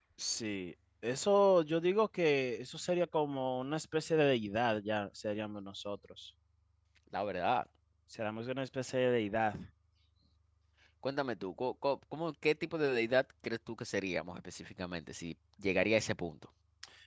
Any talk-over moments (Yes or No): No